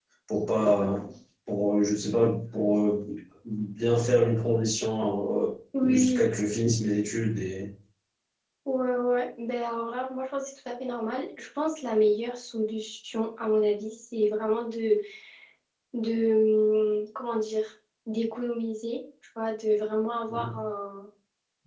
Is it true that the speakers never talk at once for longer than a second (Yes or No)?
Yes